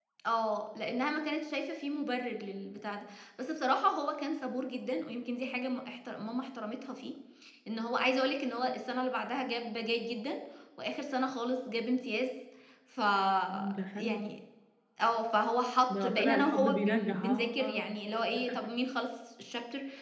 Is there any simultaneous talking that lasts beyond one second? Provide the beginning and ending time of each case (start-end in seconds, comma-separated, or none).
16.0-17.8